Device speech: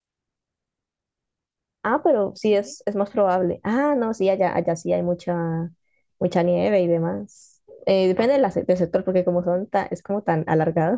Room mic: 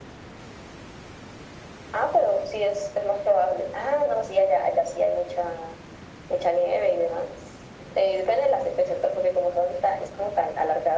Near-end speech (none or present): none